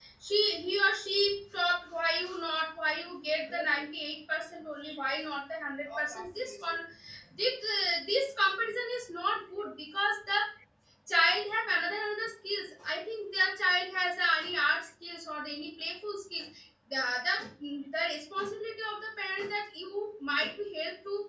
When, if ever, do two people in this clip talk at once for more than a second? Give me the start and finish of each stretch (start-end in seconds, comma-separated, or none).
none